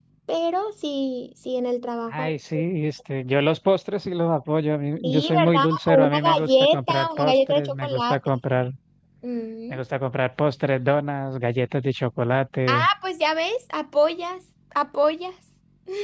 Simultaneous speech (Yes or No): Yes